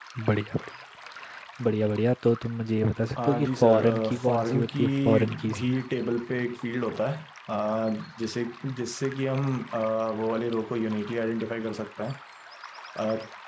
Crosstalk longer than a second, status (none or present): present